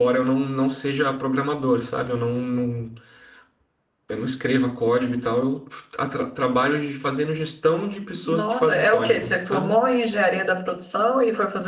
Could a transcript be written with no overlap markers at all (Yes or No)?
No